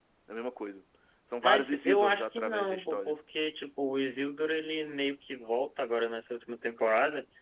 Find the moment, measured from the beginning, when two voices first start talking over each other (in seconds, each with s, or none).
1.4 s